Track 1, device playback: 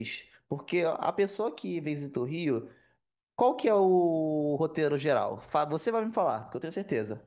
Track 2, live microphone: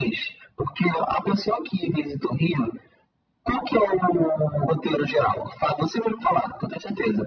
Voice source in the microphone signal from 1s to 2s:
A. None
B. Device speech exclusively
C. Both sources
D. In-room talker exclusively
B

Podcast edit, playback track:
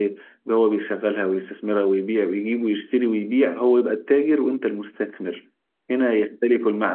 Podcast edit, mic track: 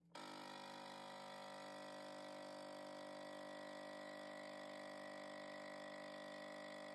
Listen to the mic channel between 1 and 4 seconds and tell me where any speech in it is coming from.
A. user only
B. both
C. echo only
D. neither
D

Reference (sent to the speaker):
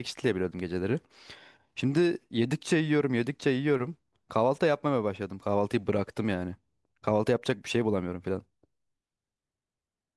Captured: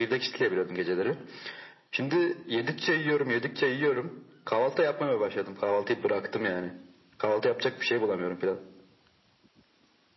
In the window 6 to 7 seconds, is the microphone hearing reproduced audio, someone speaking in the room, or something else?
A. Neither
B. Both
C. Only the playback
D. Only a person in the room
C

